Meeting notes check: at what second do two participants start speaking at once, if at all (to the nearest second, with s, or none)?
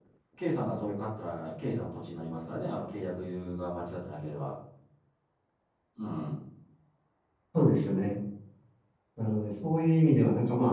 none